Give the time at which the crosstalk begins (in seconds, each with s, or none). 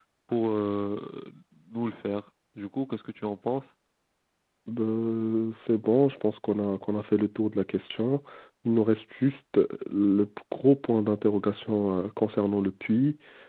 none